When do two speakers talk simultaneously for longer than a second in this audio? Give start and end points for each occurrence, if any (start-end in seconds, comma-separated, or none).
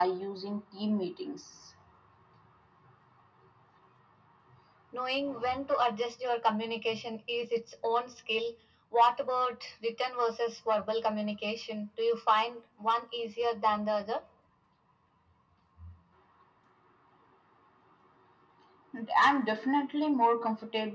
none